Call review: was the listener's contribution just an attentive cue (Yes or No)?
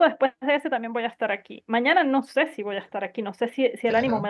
Yes